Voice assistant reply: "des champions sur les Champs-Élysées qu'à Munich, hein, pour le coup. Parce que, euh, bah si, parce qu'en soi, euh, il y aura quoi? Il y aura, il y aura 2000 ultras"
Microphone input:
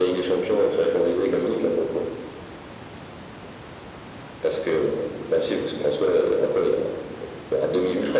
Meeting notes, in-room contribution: none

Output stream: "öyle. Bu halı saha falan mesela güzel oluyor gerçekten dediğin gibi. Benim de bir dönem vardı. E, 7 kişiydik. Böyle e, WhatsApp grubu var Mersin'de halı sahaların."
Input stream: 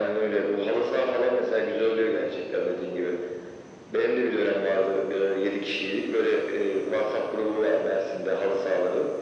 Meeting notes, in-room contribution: none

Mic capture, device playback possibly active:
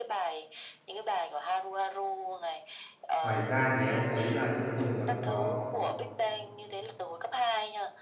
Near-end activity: present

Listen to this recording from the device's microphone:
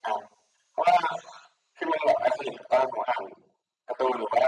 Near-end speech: none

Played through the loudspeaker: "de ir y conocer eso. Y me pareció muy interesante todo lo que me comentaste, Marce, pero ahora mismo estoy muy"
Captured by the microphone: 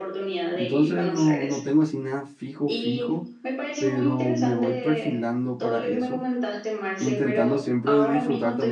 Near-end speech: present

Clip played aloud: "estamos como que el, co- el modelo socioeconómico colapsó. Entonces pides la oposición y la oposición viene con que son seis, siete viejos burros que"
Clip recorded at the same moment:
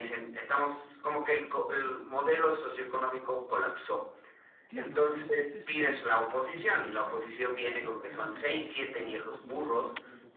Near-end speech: present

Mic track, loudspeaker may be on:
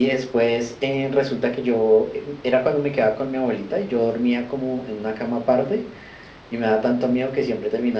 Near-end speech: none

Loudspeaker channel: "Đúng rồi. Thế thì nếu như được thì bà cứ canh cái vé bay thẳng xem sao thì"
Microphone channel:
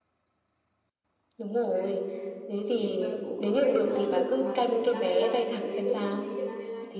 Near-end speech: present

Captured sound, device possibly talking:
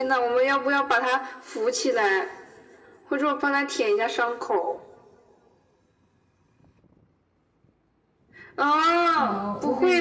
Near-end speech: present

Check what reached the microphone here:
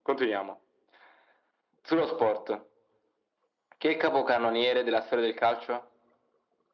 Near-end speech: none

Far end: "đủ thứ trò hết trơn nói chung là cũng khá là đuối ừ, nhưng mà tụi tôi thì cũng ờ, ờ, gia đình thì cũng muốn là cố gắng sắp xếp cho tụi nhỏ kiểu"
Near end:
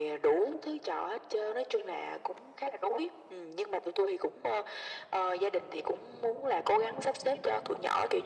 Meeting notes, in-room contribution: none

